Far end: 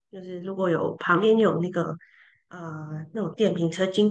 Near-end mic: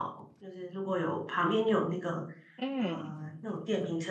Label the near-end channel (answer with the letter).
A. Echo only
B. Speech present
B